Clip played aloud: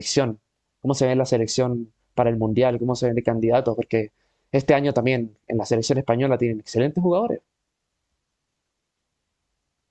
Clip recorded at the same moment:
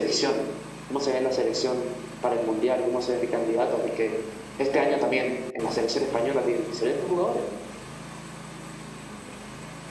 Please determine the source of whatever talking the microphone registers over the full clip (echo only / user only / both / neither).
echo only